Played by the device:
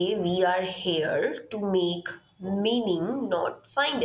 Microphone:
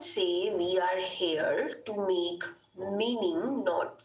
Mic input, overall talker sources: echo only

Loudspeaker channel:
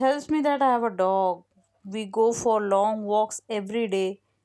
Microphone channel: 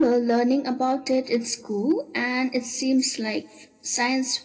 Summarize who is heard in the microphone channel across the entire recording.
user only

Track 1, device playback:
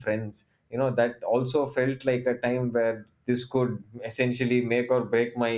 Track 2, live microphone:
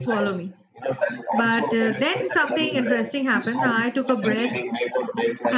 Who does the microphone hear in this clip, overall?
both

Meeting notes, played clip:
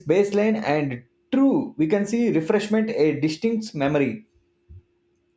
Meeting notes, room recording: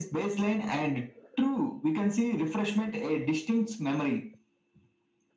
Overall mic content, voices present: echo only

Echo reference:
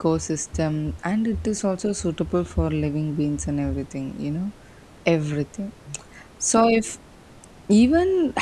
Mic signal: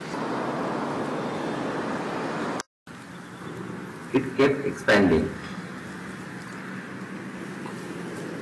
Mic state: user only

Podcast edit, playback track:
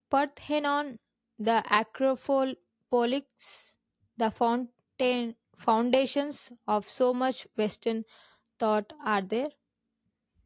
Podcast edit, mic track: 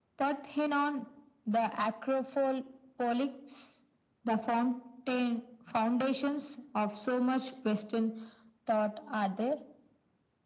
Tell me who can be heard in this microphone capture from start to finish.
echo only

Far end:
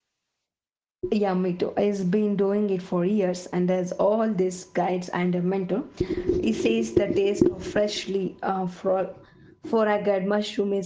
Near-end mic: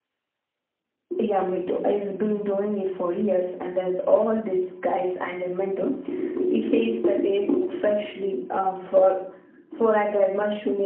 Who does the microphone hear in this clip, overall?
echo only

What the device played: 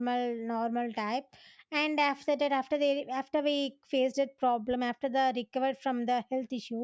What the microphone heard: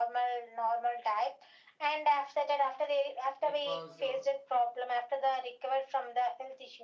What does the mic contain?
both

